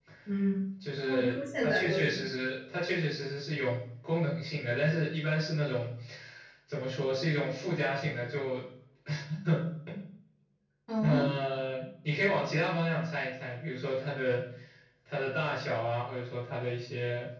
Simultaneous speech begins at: 1 s

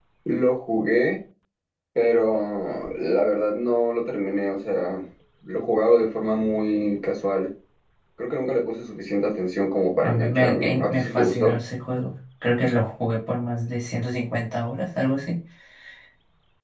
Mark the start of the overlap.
10 s

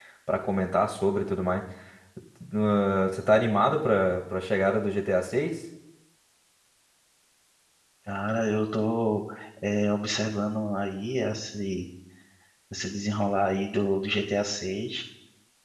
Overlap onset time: none

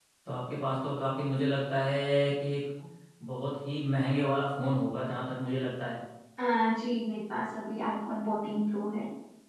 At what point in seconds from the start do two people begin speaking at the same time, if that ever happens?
none

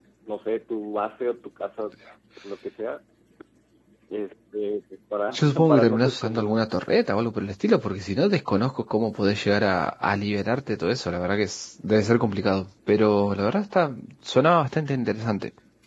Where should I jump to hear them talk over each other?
5 s

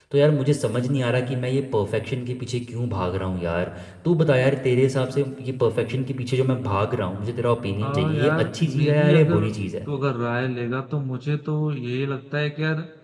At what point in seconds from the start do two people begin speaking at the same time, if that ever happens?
8 s

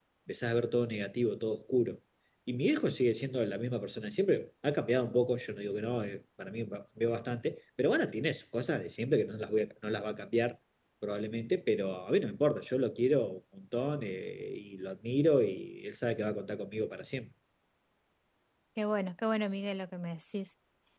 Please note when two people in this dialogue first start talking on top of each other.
none

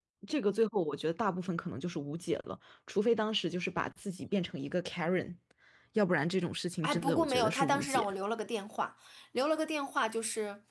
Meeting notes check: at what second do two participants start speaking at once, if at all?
7 s

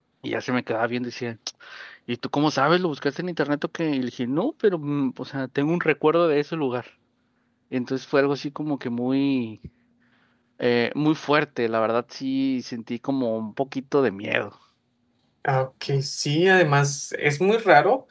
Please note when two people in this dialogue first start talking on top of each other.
none

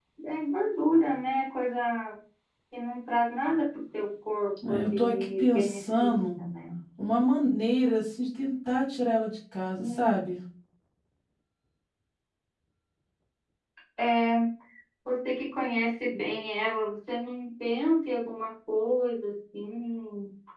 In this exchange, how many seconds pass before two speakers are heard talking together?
5 s

